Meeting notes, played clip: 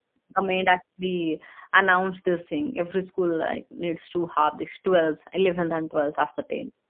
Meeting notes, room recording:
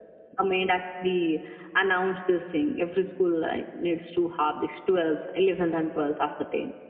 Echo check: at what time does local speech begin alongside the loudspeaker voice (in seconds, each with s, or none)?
none